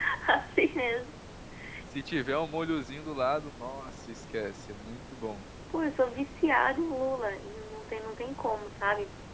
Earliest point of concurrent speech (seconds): none

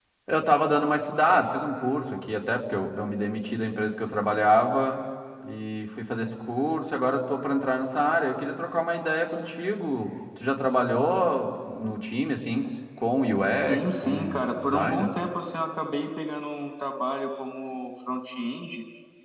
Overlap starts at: 13.7 s

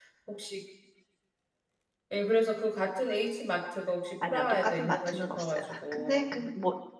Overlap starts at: 4.2 s

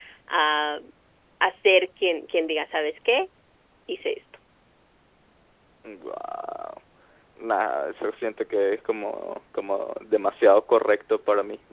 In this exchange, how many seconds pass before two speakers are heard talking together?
none

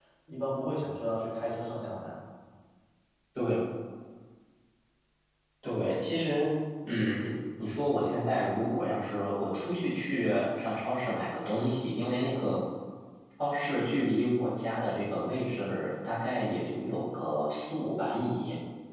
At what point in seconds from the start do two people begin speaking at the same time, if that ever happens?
none

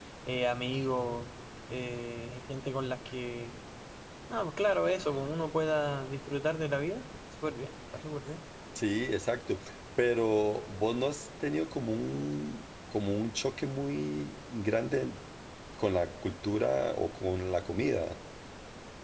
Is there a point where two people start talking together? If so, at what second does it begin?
none

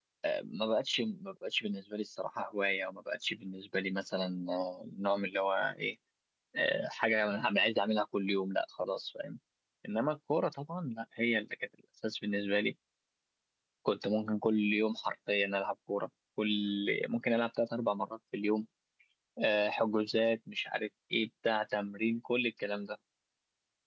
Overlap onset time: none

